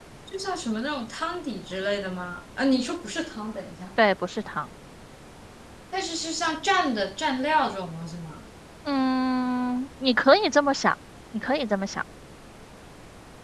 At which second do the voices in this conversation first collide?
none

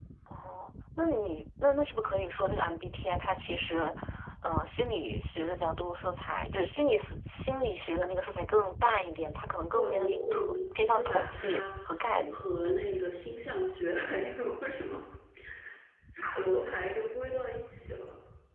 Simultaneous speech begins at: 9.7 s

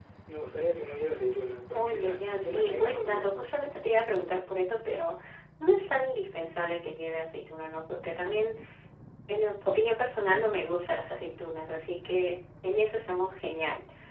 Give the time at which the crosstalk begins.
1.7 s

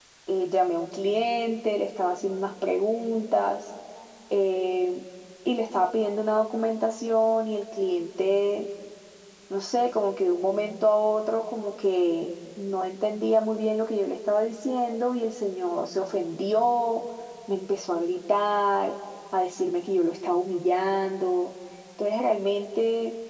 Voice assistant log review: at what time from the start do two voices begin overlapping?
none

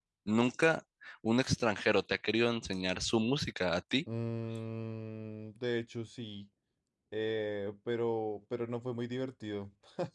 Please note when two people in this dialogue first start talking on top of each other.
none

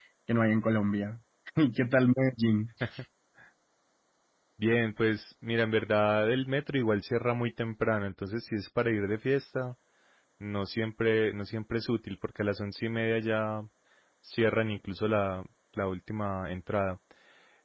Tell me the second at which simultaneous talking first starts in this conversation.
none

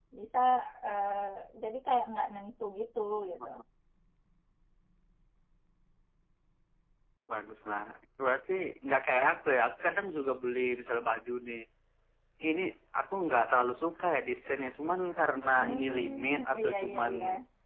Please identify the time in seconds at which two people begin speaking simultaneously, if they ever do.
15.5 s

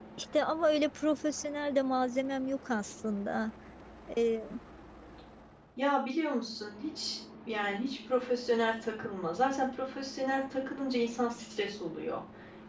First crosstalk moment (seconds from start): none

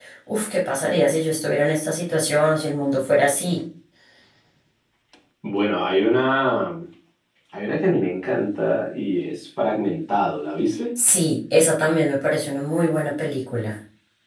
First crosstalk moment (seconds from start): none

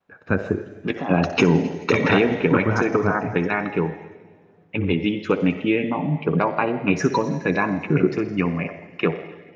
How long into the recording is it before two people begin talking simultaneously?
1.9 s

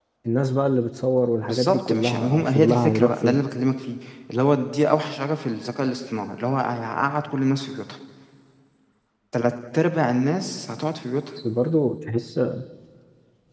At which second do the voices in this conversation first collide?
1.4 s

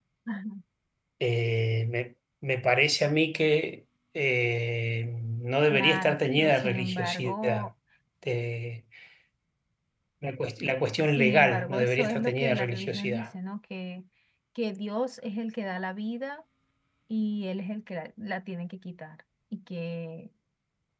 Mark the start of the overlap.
5.7 s

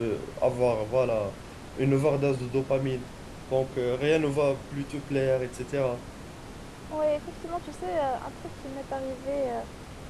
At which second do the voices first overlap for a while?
none

